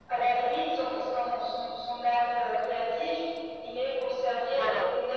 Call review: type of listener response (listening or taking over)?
listening